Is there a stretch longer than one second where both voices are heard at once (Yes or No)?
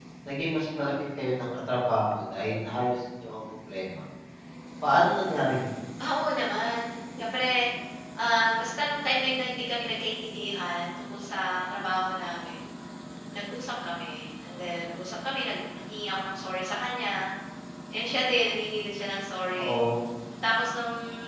No